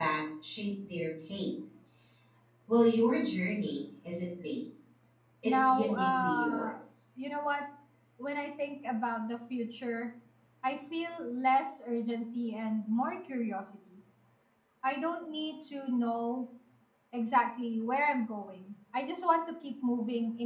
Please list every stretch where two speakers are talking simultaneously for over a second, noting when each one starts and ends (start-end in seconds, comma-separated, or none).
5.4-6.7